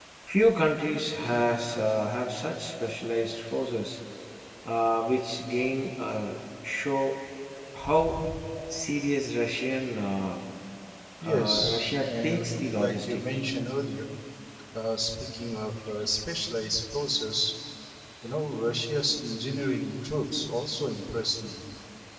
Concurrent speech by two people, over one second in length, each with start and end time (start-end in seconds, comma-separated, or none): 11.2-13.2